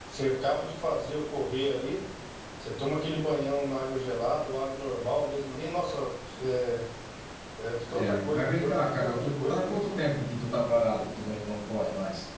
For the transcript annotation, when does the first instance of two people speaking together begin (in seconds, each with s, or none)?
7.9 s